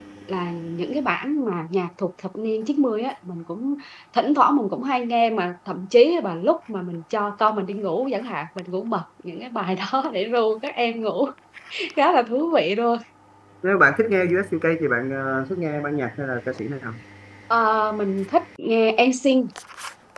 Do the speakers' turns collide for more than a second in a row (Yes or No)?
No